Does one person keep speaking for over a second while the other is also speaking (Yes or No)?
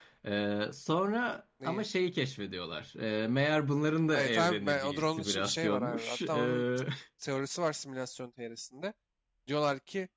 Yes